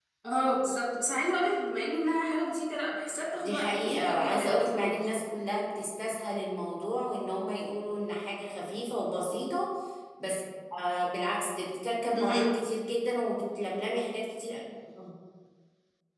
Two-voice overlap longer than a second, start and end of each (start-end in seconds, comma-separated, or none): 3.4-5.1